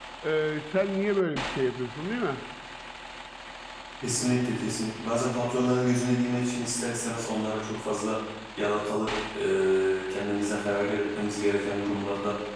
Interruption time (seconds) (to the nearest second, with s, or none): none